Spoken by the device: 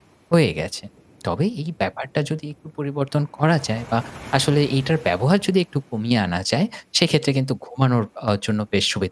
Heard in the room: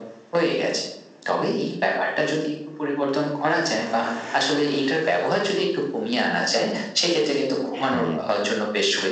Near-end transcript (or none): হ্যাঁ।